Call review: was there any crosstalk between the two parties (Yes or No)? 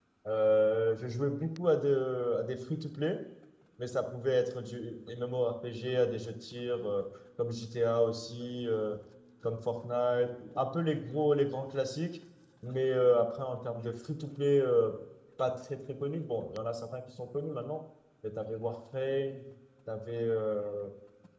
No